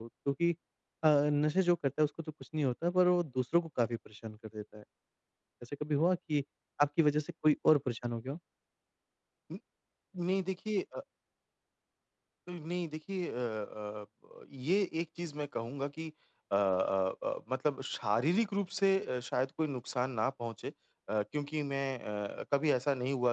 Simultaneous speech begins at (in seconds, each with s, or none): none